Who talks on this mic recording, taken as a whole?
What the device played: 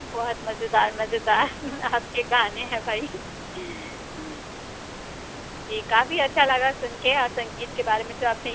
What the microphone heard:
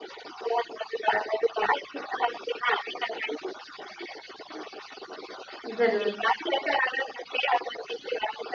both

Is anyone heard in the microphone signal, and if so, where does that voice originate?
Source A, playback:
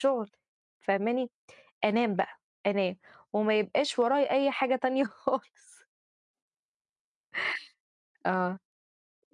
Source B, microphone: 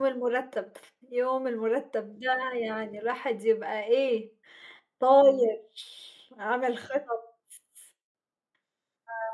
user only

